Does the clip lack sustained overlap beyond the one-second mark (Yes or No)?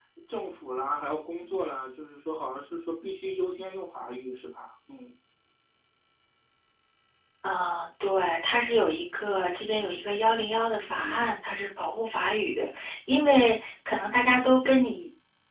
Yes